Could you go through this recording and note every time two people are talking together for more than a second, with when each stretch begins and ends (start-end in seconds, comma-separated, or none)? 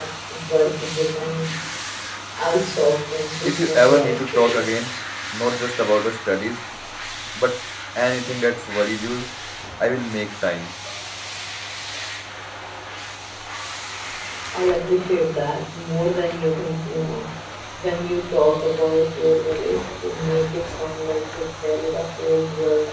3.5-4.9